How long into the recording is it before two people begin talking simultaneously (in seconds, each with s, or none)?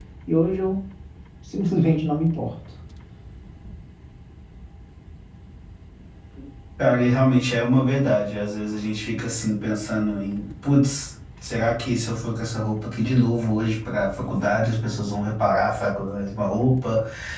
none